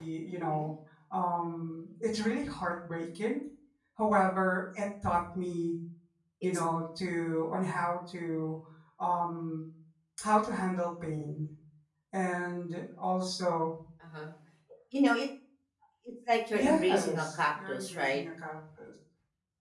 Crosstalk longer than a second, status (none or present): present